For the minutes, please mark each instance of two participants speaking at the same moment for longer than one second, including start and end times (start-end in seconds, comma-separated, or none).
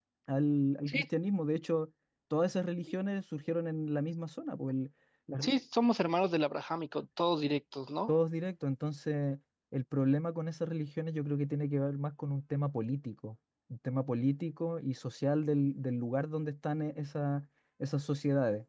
none